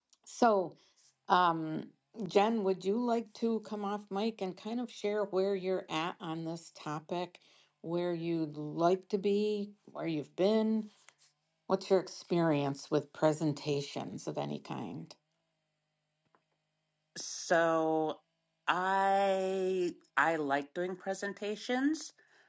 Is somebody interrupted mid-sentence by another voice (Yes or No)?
No